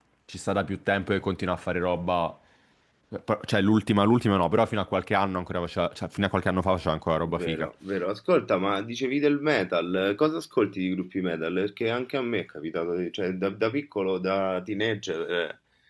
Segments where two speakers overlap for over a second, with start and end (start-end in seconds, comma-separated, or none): none